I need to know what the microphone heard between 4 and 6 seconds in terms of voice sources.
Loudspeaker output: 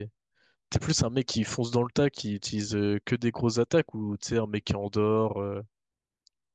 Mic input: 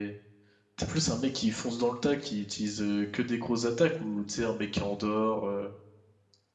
echo only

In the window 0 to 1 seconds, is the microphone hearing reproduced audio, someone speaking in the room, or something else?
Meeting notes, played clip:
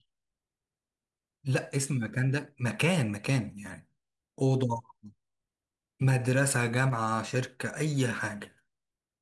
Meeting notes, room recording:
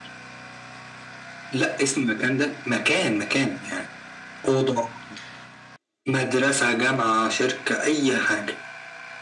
neither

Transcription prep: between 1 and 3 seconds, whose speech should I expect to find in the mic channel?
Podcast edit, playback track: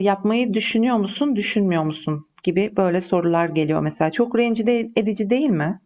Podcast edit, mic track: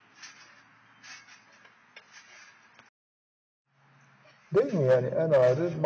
neither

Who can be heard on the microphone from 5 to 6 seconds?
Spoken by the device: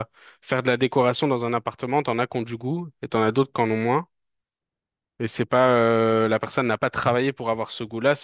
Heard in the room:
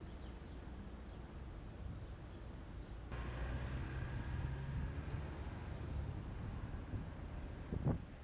neither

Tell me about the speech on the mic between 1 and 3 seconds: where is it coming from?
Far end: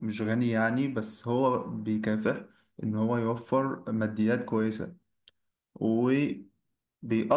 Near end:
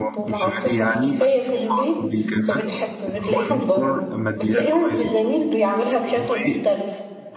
both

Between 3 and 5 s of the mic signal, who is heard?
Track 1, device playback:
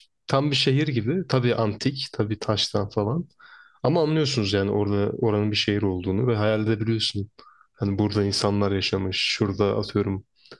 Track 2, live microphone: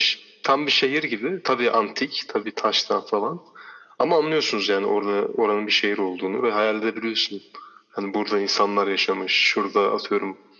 echo only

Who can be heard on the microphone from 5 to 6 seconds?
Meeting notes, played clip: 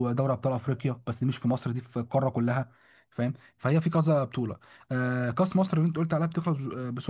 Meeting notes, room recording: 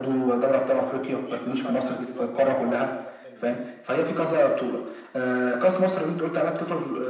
echo only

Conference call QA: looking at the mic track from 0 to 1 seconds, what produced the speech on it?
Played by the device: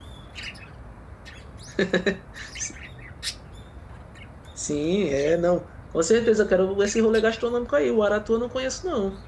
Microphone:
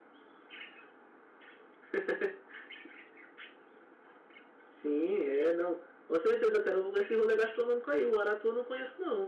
neither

